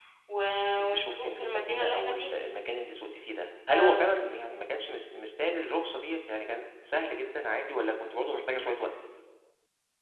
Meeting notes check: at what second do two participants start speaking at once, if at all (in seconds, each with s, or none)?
0.8 s